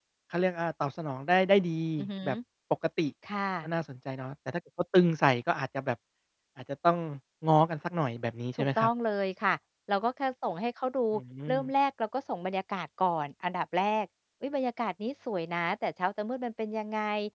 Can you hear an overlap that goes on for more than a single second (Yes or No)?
No